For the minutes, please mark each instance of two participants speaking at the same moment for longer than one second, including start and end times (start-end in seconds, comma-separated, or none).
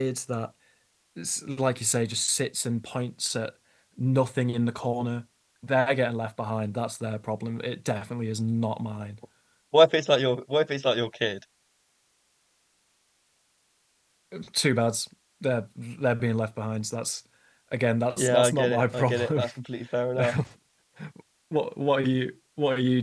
18.2-19.4